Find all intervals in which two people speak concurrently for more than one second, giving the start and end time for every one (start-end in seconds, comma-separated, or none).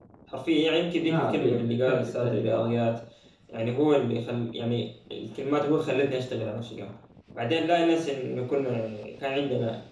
1.0-2.7